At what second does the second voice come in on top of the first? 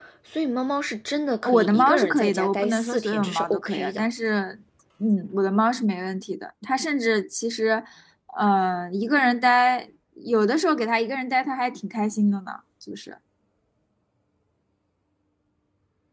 1.4 s

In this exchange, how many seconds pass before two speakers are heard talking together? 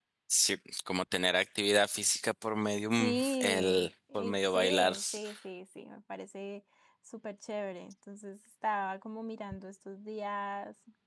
2.9 s

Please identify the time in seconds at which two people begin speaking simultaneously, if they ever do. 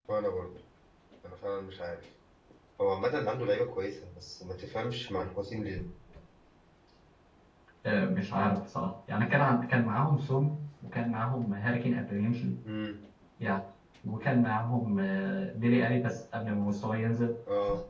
none

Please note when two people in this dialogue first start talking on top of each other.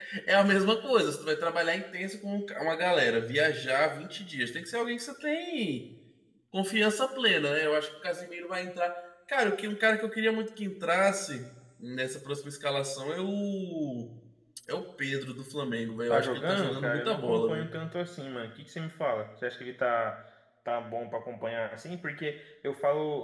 16.1 s

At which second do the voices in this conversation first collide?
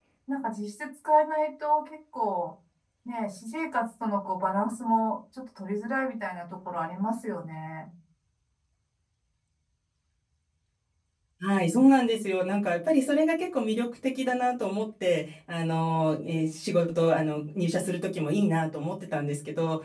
none

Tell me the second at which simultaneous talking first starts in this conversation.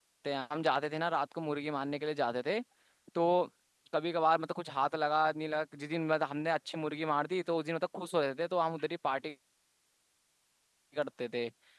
none

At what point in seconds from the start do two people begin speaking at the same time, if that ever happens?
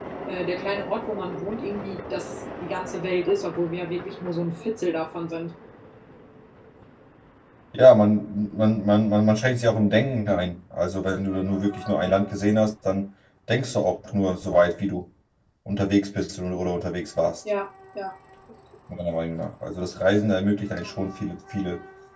none

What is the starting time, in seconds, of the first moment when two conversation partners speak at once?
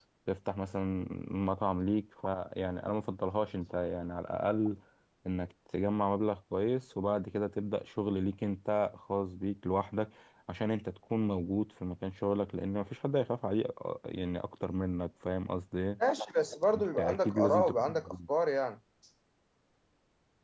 16.7 s

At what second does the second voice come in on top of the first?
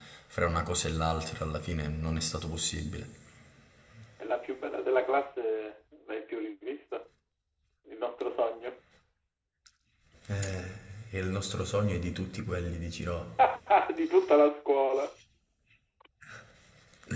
none

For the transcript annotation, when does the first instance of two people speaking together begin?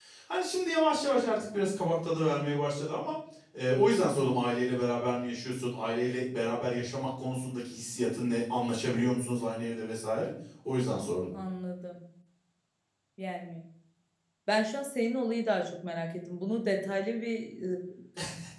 none

